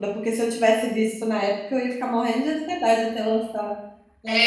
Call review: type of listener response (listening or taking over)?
taking over